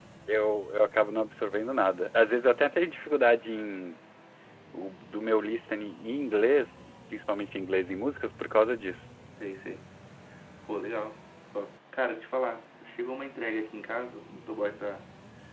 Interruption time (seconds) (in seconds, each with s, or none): none